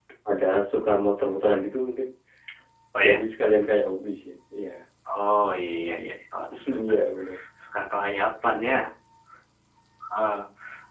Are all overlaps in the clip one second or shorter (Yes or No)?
Yes